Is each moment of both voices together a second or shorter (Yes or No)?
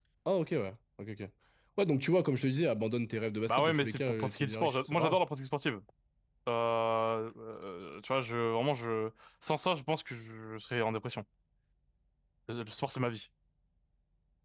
No